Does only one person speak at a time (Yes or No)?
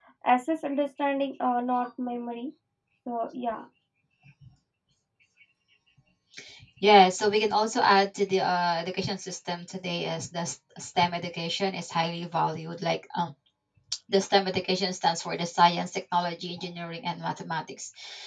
Yes